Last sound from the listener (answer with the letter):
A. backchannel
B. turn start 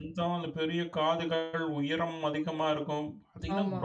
A